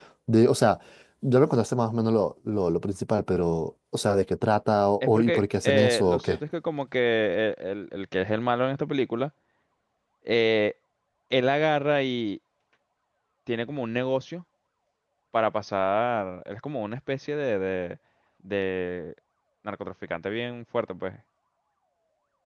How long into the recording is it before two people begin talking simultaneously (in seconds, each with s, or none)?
5.0 s